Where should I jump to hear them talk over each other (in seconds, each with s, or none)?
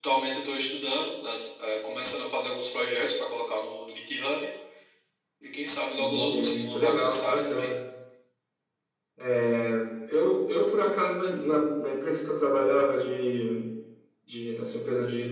6.0 s